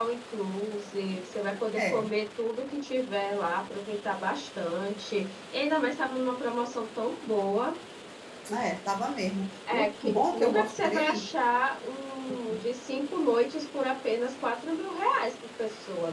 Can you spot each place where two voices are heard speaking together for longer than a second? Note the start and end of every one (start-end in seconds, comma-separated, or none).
9.7-11.2